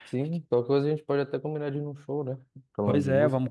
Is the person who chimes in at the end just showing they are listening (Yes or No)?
No